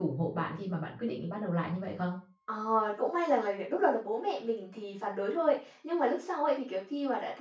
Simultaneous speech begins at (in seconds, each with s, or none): none